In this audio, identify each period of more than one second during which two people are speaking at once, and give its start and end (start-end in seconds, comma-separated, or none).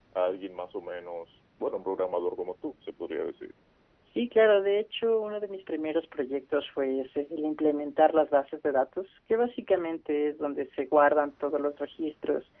none